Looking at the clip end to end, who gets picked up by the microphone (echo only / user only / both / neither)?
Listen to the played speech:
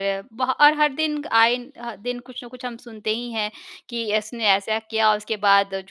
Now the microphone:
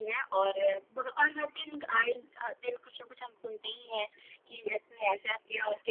echo only